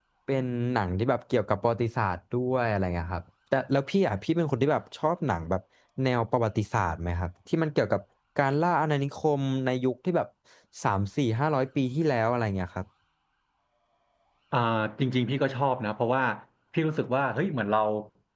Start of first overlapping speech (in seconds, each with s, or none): none